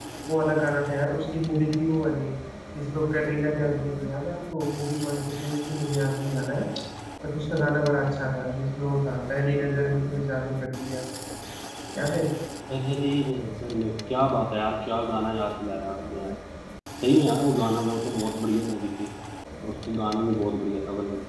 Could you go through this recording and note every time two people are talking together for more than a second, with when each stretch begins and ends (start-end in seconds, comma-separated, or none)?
none